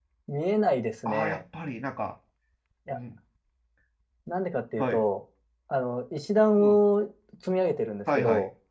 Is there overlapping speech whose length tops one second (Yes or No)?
No